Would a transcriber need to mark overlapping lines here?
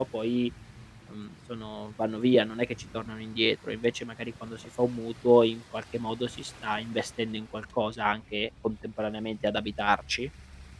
No

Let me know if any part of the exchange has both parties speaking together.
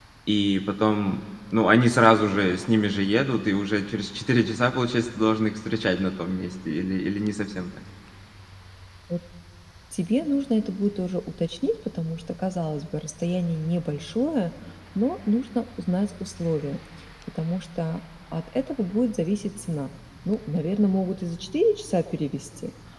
No

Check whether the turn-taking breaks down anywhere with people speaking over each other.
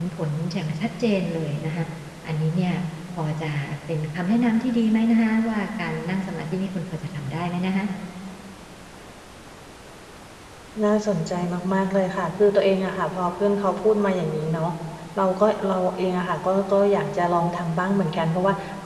No

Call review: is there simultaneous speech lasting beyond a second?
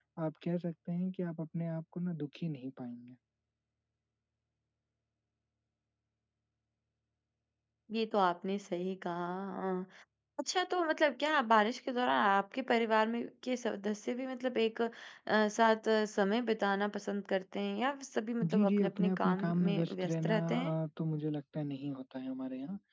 Yes, from 18.4 s

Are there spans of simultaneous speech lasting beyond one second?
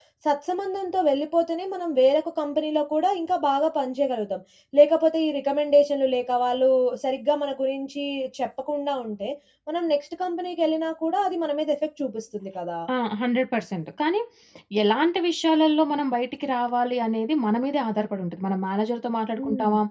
No

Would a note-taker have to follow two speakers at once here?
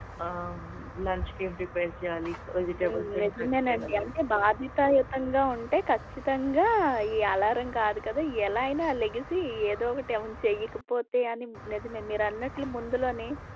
Yes, from 2.7 s

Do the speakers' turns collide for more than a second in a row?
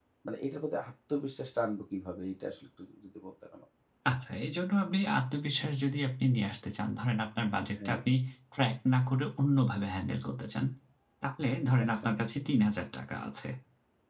No

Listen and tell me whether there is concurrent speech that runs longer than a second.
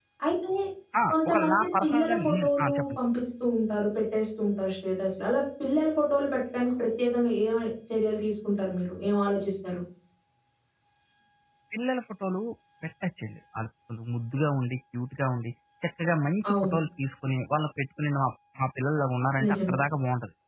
Yes, from 1.1 s

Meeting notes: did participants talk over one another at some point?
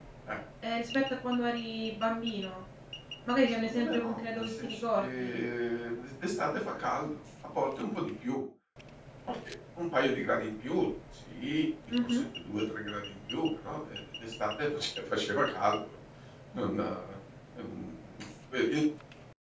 Yes, from 3.6 s

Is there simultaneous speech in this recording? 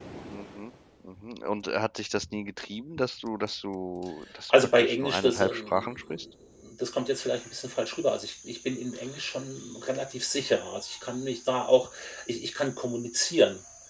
Yes, from 4.5 s

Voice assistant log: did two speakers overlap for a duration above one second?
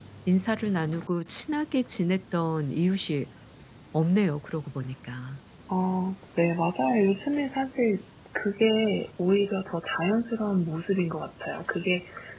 No

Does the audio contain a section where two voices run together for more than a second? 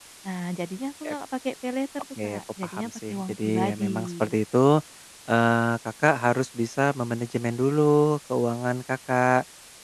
Yes, from 2.2 s

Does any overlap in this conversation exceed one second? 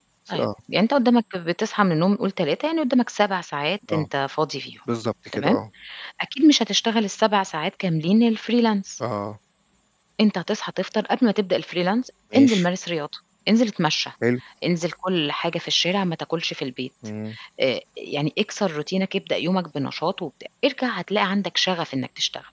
No

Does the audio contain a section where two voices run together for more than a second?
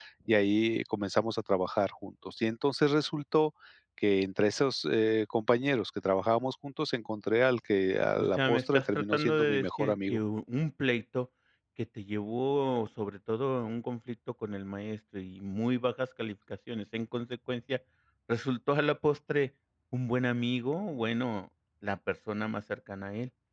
Yes, from 8.2 s

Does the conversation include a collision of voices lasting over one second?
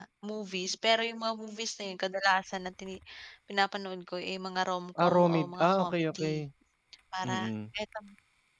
Yes, from 5.0 s

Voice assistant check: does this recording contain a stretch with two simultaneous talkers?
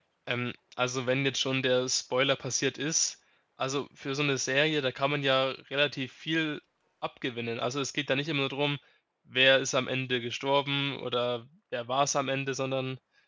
No

